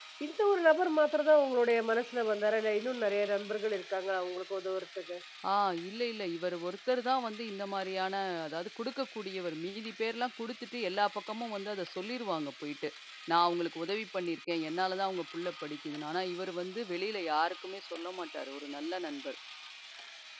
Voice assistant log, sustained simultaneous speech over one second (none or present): none